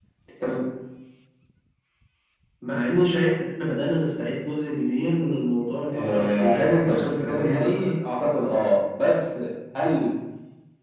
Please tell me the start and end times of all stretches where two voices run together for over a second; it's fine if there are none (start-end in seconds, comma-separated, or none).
5.9-8.0